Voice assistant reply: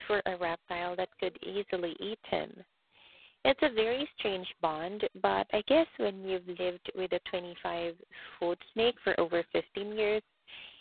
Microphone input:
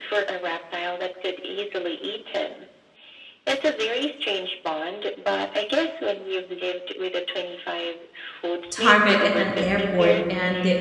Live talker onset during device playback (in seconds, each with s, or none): 8.7 s